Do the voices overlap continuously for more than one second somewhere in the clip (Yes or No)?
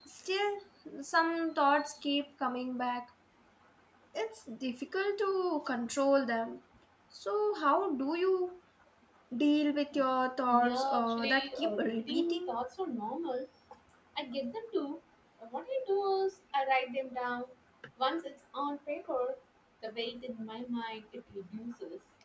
Yes